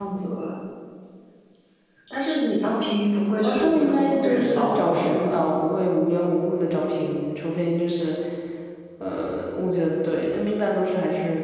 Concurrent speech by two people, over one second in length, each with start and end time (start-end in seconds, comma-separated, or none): 3.4-5.2